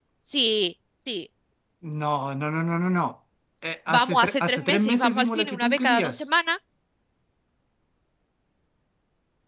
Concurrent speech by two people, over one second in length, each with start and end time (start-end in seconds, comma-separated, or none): 3.9-6.2